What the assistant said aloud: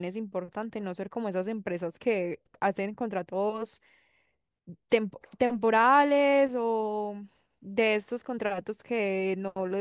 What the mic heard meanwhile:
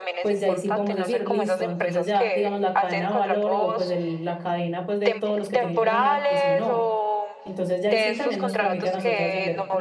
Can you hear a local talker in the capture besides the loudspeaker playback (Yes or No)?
Yes